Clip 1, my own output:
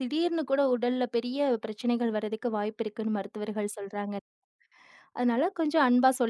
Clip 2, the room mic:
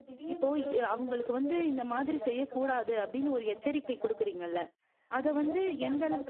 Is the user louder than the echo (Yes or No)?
Yes